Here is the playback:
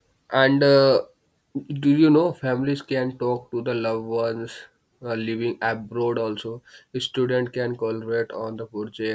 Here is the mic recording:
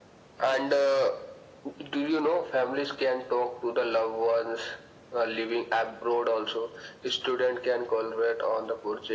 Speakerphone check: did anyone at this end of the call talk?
No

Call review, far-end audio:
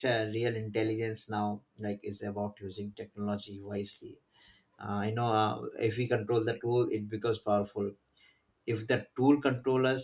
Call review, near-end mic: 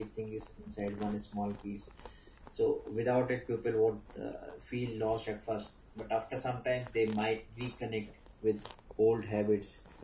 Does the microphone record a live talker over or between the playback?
Yes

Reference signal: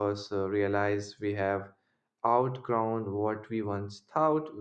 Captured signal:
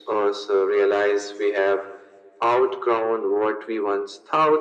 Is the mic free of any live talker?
Yes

